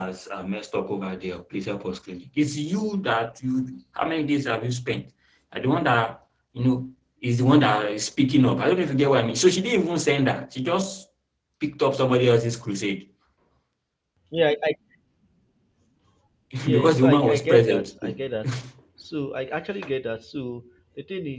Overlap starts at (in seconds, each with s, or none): 16.7 s